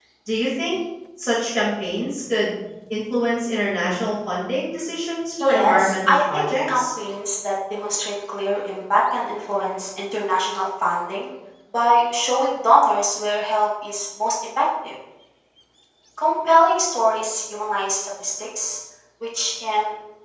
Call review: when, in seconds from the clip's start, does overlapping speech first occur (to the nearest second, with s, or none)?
5 s